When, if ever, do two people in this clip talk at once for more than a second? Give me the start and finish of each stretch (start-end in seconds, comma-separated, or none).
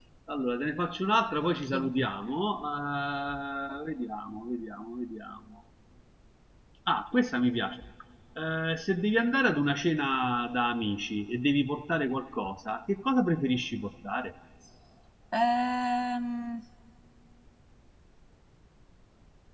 none